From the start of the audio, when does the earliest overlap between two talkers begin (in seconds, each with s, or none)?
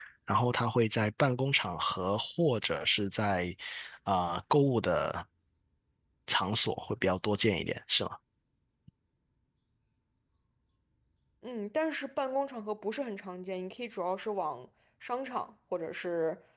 none